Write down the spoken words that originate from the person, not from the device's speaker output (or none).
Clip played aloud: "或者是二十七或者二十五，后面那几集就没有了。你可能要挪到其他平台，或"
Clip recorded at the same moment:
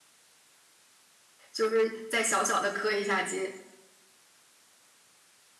就是再小小的磕一下机。